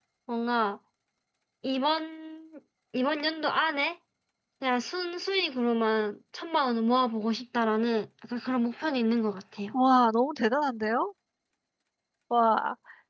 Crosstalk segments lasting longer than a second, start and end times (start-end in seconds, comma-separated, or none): none